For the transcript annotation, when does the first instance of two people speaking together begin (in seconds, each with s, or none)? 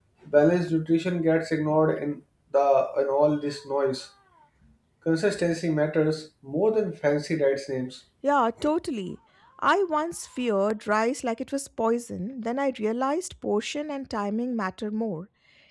none